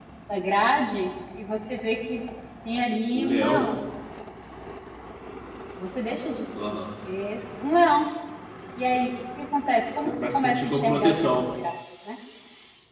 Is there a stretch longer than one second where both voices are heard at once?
Yes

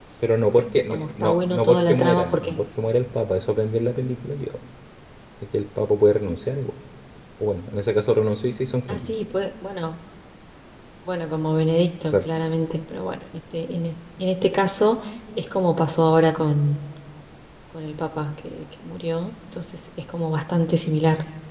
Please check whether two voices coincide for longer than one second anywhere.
Yes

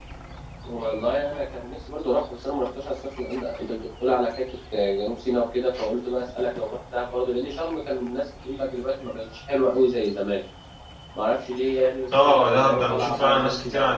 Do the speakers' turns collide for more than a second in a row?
Yes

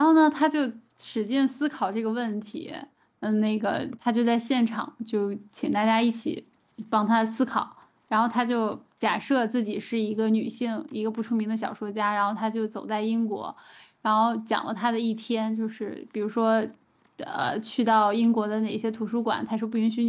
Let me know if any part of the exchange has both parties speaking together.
No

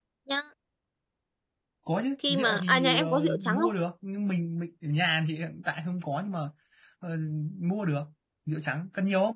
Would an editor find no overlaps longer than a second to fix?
No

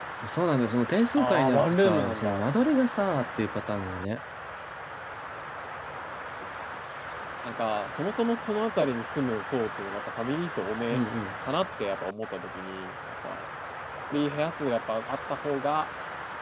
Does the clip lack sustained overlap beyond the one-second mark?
No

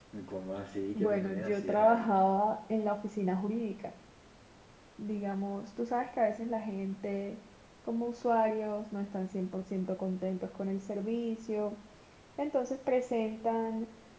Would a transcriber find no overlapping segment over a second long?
No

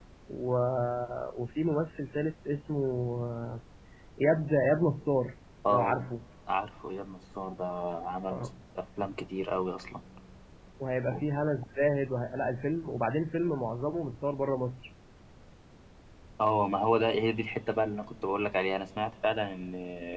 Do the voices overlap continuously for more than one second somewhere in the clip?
No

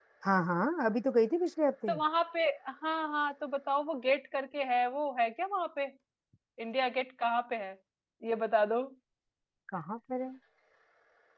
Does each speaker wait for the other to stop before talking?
Yes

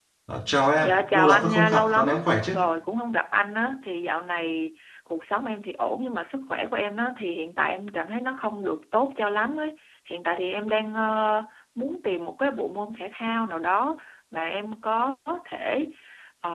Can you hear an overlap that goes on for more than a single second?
Yes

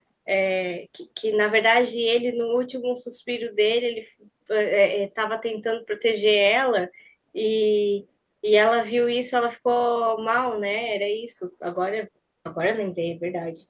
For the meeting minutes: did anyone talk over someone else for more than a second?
No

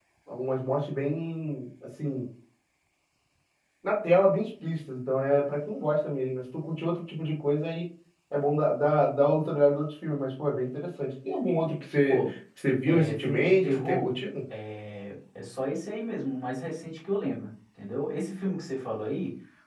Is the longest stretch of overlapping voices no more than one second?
No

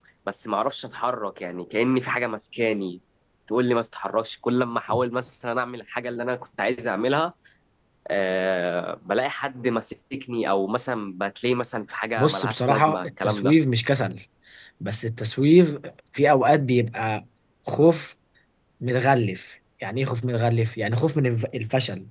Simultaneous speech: Yes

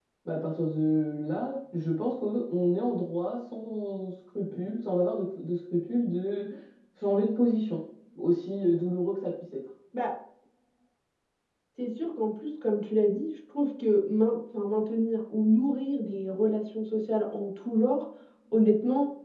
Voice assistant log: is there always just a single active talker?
Yes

